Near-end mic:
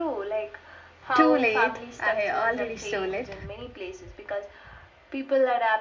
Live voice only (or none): Too late. I already stole it.